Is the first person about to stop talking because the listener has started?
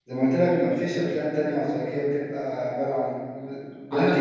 Yes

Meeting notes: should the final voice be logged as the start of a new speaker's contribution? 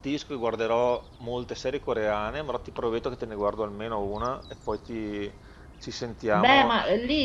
Yes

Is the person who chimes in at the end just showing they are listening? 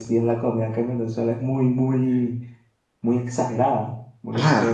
No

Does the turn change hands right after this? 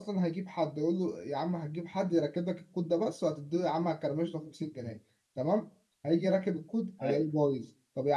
No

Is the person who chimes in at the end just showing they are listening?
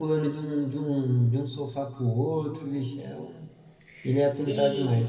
No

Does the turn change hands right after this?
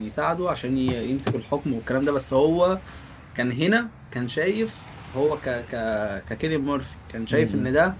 No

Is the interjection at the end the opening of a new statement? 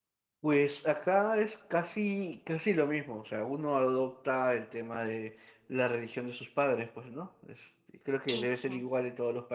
No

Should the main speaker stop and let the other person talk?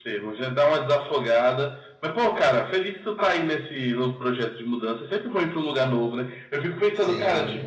No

